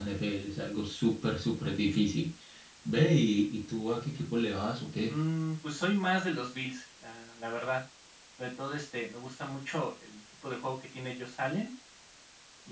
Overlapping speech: No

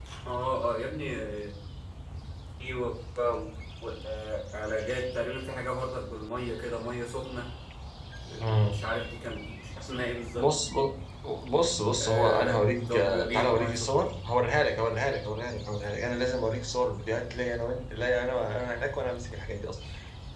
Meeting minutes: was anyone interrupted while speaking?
Yes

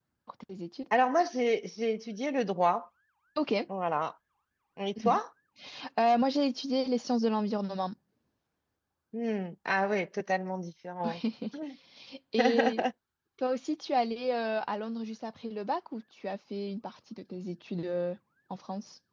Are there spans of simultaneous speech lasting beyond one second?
No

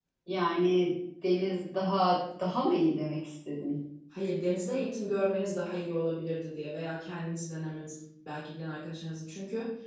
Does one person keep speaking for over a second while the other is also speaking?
No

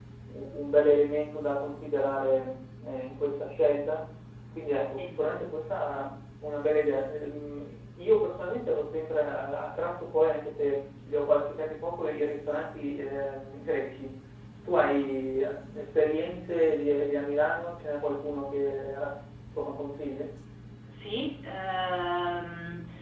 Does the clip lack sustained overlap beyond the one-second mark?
Yes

